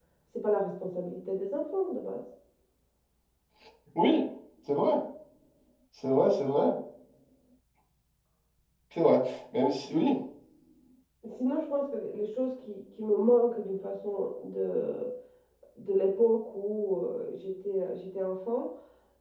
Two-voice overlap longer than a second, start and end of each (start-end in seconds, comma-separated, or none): none